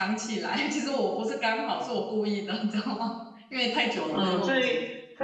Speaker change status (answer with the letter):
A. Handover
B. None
A